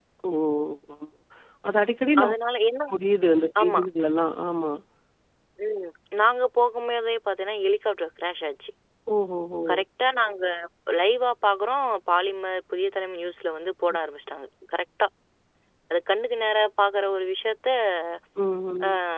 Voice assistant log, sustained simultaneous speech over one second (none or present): none